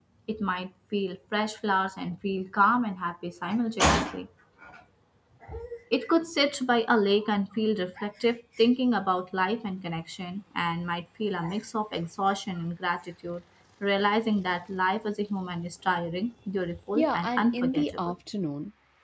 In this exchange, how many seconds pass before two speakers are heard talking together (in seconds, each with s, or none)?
16.9 s